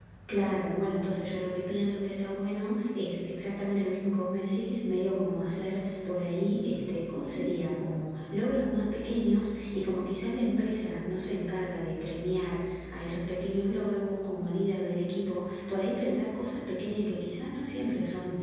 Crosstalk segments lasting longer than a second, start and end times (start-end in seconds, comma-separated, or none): none